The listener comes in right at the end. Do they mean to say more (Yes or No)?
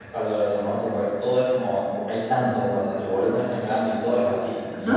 Yes